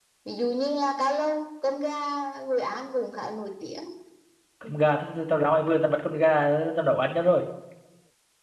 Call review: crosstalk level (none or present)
none